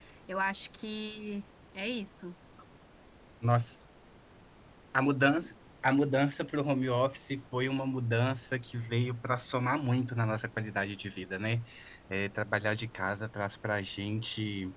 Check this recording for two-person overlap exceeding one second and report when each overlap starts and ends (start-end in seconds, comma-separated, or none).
none